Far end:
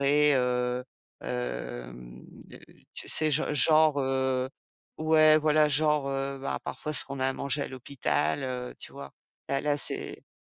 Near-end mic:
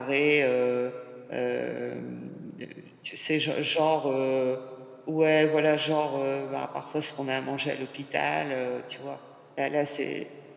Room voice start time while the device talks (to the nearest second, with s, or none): none